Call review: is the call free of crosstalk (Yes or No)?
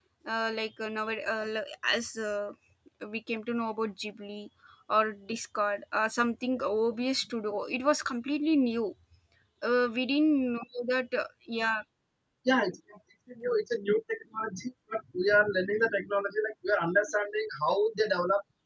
Yes